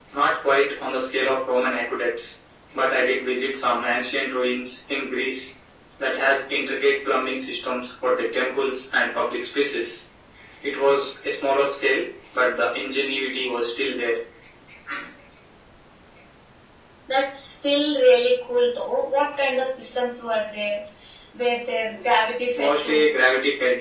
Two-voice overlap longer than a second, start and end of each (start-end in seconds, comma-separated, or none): none